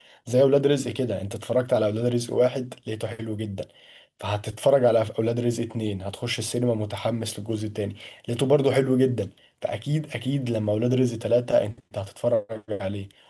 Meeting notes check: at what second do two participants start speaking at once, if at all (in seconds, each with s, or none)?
none